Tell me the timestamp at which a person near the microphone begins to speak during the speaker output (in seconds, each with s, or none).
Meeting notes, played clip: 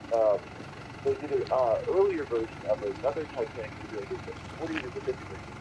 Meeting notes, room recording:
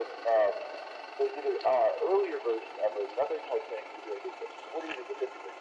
none